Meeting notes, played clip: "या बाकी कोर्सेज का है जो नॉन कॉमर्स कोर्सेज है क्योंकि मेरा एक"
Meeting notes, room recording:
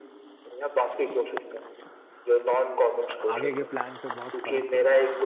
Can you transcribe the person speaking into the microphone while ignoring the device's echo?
आगे के प्लान पे बहुत फर्क पड़ा

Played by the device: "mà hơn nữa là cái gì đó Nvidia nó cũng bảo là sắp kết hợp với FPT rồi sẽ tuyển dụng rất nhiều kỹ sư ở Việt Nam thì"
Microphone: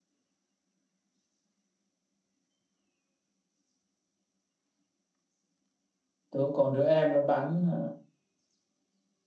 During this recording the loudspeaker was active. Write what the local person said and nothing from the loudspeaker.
tôi cũng còn đứa em nó bán à,

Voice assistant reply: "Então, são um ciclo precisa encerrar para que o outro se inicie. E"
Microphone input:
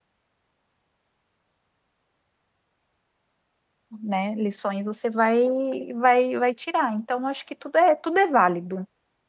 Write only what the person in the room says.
né? Lições você vai, vai, vai tirar. Então, acho que tudo é, tudo é válido.

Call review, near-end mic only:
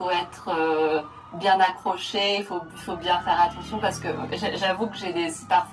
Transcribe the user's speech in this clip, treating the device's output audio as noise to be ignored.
none

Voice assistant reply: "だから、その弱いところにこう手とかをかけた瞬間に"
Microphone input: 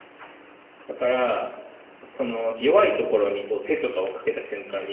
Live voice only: none

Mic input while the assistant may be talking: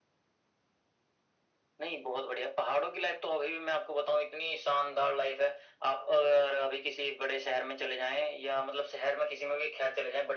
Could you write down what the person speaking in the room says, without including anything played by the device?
none

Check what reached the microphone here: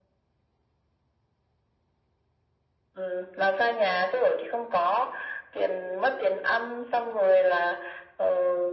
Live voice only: none

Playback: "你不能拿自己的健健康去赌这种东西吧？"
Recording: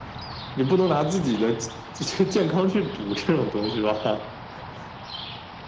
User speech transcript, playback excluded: none

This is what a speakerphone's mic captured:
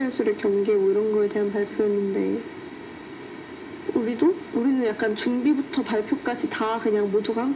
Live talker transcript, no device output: none

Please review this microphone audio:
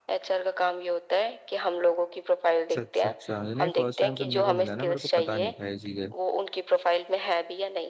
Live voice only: अच्छा अच्छा अच्छा नहीं फर्स्ट टाइम सुनने को मिला ना मेरे को पता नहीं था ये चीजें

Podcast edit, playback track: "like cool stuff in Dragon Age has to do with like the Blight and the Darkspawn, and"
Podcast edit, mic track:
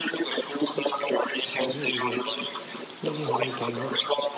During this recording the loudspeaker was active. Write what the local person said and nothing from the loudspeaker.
Just, it just, it just never came up.

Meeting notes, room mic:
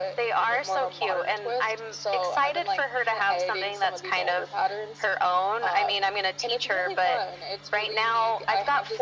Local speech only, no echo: none

